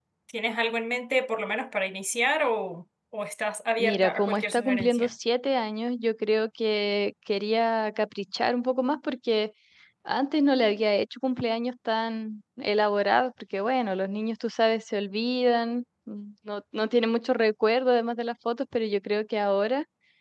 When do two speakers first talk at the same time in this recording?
3.8 s

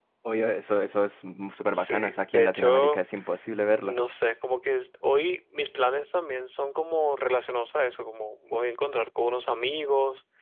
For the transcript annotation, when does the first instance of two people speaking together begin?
1.6 s

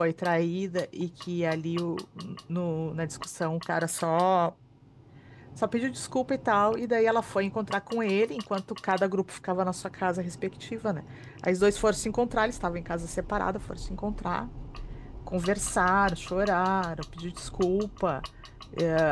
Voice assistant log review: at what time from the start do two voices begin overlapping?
none

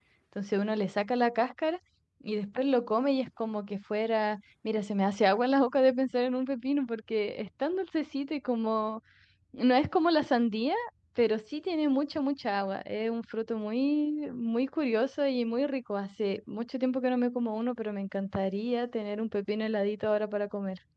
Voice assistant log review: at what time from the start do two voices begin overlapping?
none

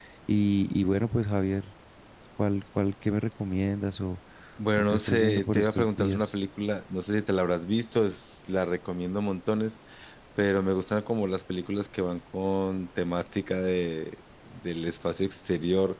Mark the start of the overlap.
4.8 s

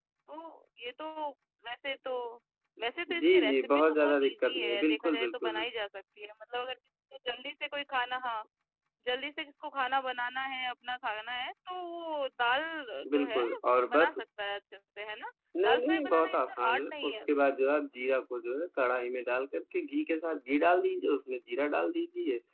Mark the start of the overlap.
3.2 s

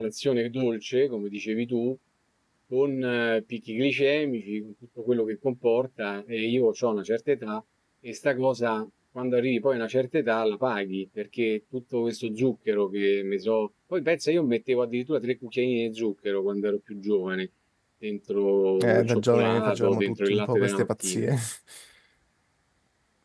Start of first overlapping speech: 18.8 s

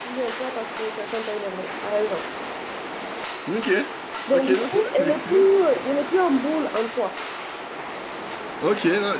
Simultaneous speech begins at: 4.3 s

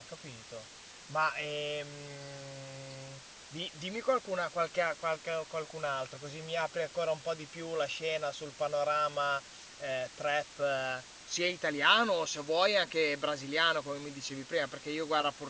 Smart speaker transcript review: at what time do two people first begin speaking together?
none

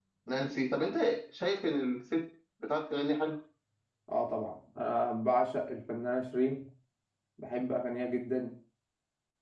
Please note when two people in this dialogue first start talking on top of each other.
none

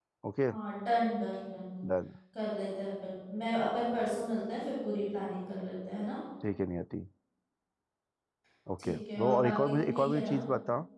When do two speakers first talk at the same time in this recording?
8.8 s

